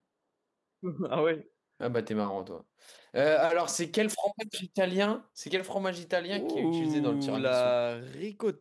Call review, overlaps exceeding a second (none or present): present